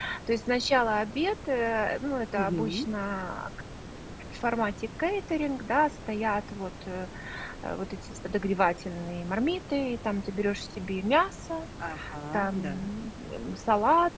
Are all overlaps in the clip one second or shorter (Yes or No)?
Yes